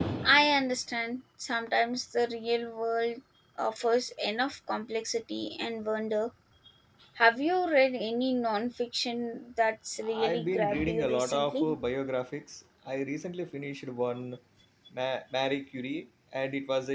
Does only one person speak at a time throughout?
No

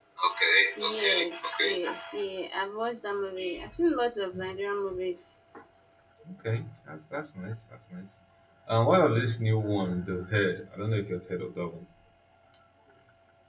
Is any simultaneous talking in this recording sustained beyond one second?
No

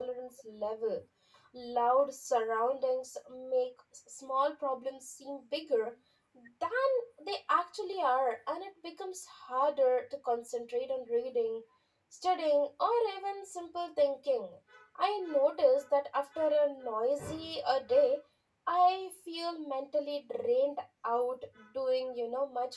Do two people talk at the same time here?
No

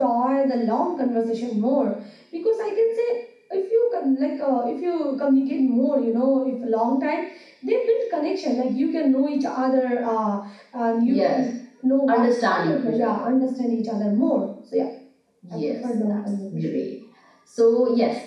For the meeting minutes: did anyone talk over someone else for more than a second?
Yes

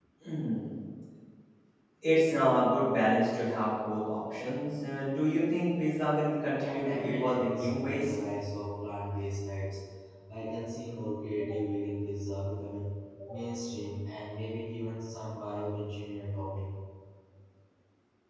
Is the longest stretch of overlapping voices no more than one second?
No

